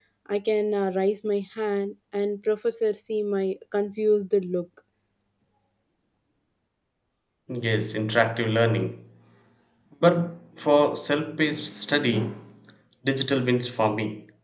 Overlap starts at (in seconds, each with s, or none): none